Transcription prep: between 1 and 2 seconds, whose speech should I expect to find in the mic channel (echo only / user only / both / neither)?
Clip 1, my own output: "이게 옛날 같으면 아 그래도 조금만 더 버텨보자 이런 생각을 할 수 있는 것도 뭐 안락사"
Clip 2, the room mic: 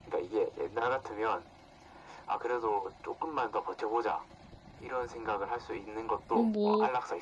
echo only